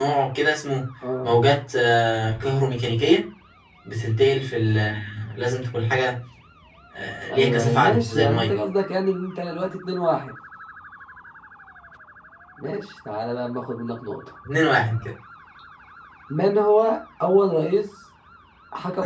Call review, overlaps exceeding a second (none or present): present